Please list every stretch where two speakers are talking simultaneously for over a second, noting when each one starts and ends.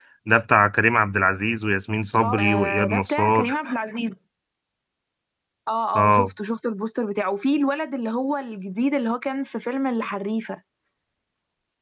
2.2-3.5

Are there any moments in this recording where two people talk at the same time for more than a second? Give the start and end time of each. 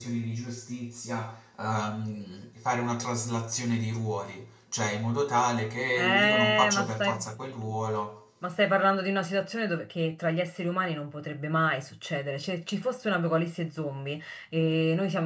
6.0-7.2

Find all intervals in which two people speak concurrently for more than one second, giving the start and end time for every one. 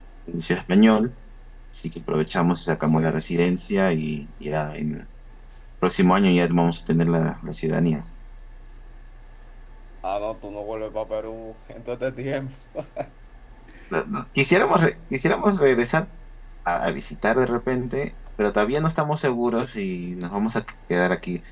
none

